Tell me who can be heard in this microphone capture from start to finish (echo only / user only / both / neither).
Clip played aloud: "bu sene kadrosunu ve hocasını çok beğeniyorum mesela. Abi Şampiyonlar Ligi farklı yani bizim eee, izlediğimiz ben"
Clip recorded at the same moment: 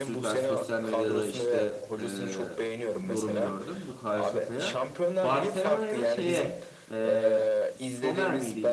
both